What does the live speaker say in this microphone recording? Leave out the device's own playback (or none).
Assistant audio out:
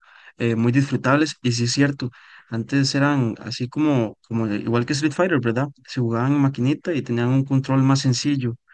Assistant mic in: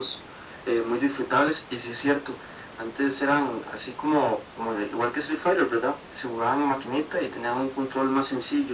none